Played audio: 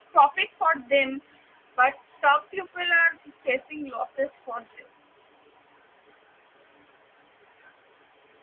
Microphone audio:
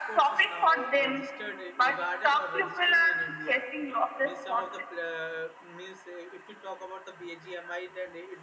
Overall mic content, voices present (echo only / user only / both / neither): both